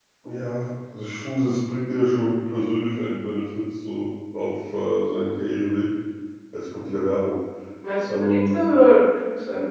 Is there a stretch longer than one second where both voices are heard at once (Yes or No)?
No